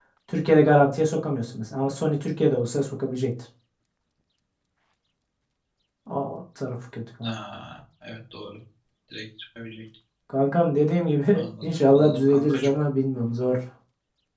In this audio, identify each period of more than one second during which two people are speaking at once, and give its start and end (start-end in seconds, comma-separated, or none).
11.3-12.7